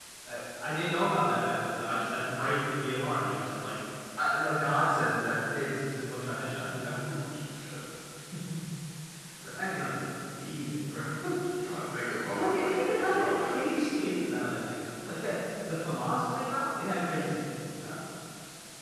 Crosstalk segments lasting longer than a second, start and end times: 12.3-13.9

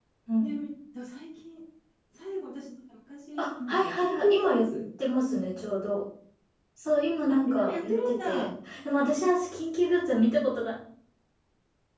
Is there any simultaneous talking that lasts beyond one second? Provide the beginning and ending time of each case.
3.4-4.6, 7.3-8.5

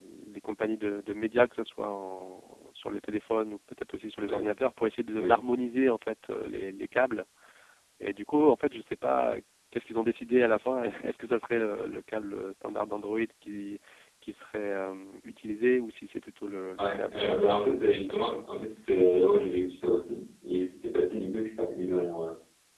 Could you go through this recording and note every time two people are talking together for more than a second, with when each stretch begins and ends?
16.8-18.4

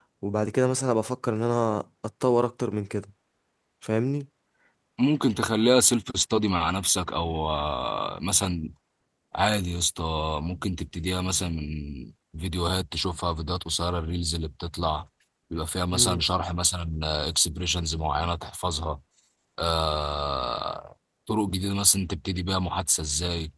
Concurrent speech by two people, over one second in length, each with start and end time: none

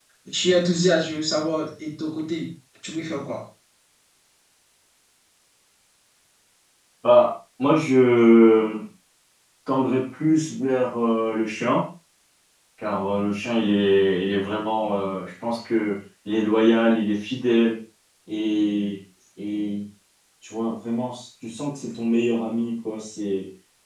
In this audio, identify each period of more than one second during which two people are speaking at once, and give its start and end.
none

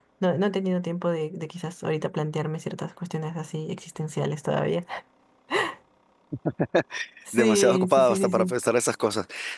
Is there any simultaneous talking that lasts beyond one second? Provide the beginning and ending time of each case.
7.3-8.5

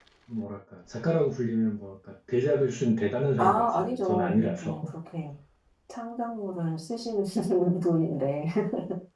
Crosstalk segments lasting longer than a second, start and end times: 3.4-5.0

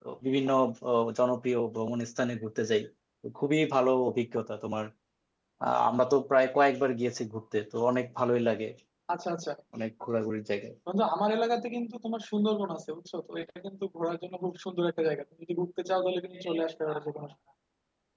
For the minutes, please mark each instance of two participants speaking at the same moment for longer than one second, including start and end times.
none

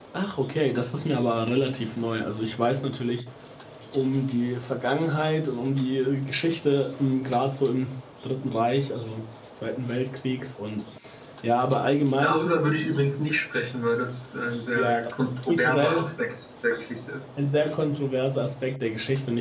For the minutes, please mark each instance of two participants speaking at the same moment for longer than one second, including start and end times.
14.8-16.1

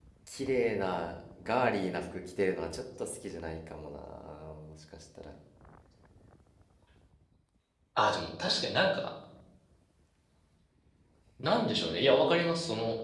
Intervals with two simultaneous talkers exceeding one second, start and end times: none

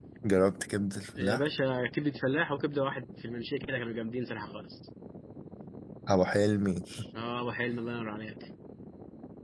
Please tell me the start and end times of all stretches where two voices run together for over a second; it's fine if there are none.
none

